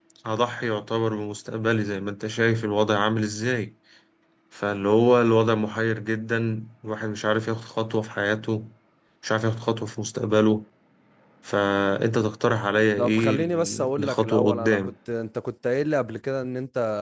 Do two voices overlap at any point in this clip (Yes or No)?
Yes